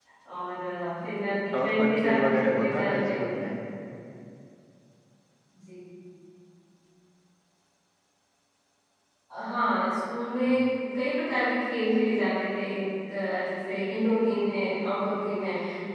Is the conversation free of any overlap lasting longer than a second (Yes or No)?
No